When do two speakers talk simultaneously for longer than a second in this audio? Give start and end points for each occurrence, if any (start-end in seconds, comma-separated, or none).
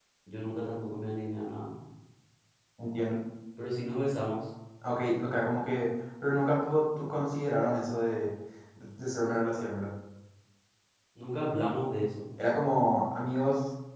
none